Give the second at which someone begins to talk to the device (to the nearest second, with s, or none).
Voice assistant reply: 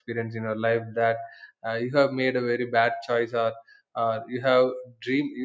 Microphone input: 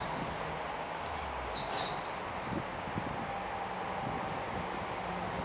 none